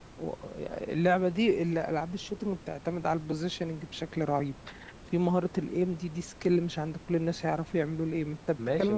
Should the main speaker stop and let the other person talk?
Yes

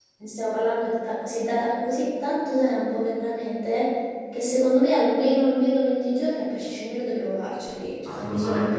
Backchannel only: No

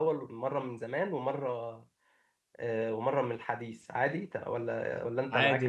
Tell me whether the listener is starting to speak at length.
Yes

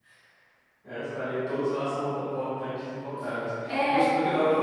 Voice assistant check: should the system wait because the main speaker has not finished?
Yes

